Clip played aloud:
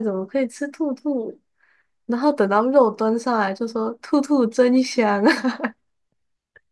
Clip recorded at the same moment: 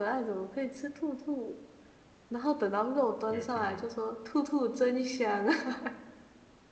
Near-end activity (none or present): present